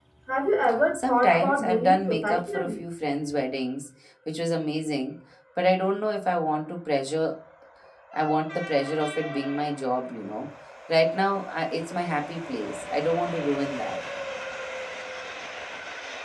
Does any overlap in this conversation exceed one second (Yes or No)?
Yes